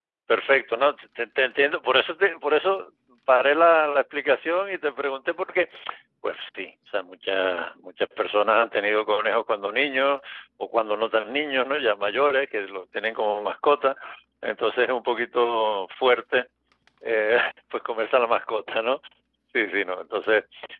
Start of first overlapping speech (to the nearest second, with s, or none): none